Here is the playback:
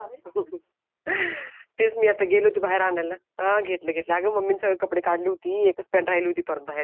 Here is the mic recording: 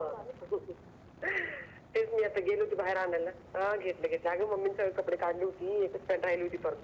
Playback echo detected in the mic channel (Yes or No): Yes